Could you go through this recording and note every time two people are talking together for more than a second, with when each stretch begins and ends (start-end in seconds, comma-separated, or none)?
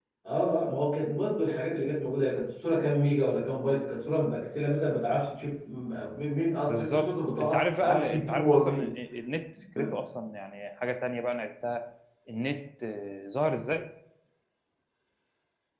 6.7-8.9